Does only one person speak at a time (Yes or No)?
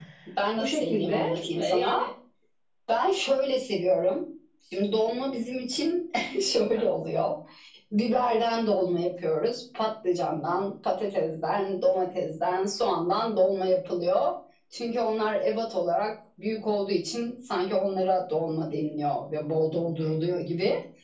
No